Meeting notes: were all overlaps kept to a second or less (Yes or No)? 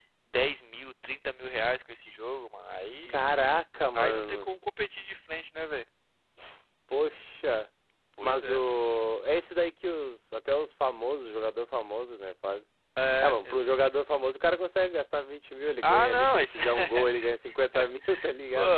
No